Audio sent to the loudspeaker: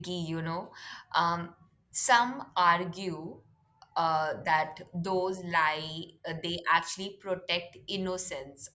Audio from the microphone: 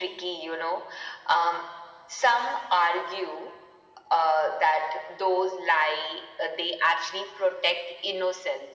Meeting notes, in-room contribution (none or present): none